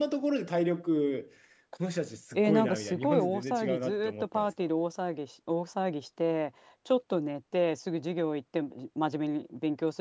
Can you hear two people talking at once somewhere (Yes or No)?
Yes